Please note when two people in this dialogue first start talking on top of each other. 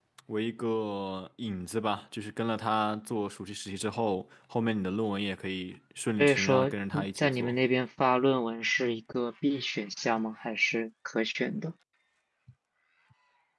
6 s

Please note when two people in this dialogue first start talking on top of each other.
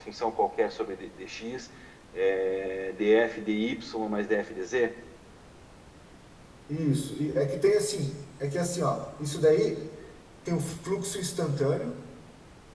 none

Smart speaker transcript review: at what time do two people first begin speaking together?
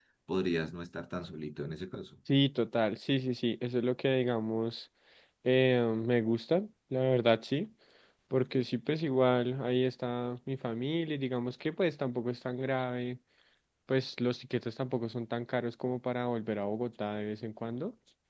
none

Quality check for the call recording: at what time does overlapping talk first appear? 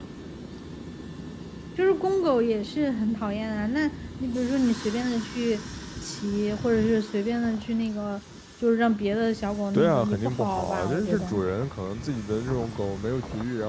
10 s

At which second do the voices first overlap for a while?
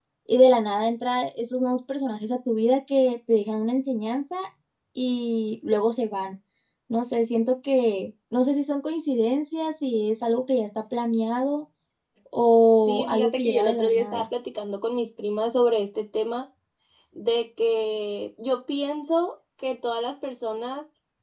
13 s

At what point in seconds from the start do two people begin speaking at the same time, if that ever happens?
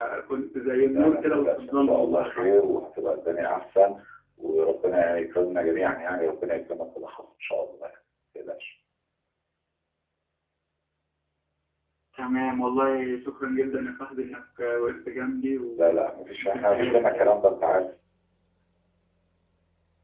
1 s

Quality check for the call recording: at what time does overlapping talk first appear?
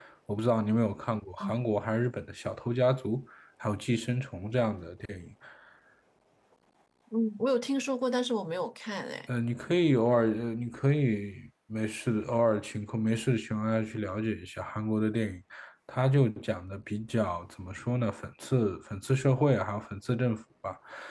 none

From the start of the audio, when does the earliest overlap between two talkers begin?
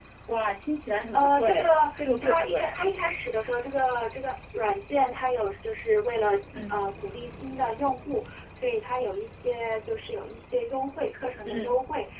1 s

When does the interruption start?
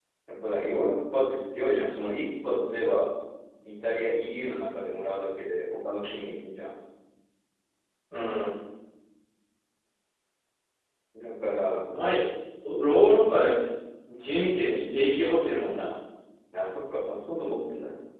none

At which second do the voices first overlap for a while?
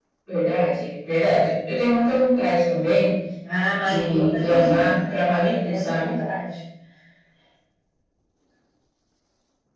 4 s

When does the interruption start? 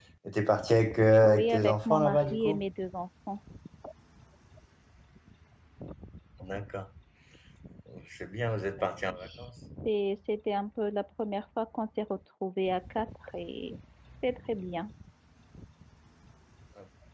1 s

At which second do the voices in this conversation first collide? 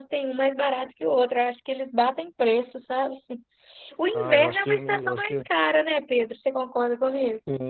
4 s

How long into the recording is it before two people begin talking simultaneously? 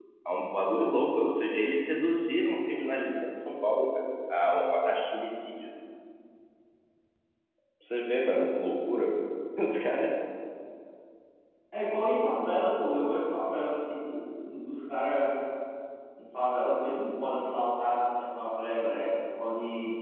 none

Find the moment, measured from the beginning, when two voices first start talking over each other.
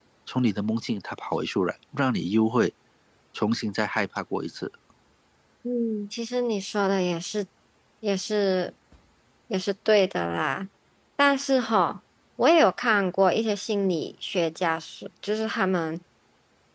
none

